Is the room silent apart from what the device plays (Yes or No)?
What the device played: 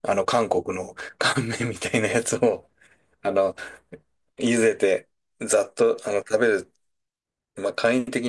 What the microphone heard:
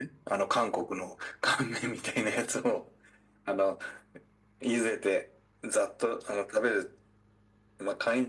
Yes